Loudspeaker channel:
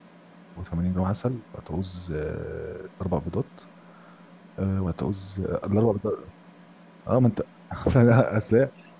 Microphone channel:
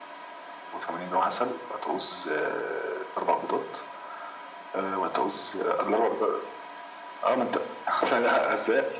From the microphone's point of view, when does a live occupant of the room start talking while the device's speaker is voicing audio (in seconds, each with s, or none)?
none